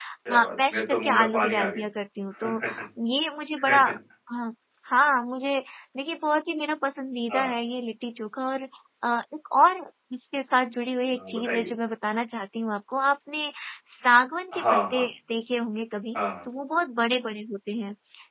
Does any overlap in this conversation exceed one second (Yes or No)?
Yes